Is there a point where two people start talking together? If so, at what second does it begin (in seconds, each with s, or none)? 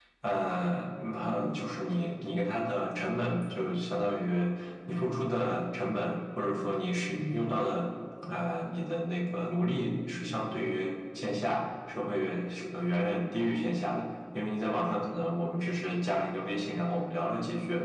none